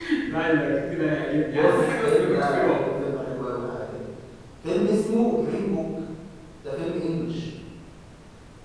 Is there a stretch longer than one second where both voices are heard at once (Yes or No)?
Yes